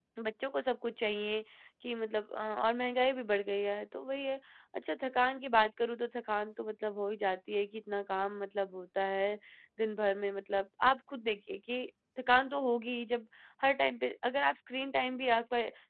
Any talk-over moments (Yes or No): No